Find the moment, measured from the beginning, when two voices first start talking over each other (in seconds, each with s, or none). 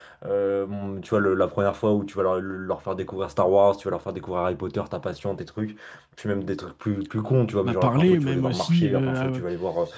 7.6 s